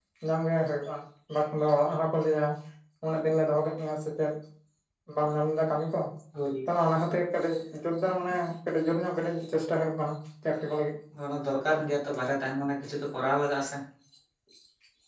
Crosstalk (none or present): none